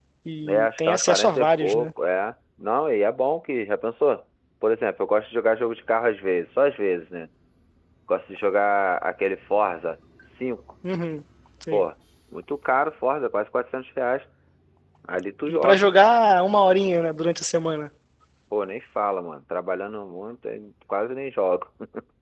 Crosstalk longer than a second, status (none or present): present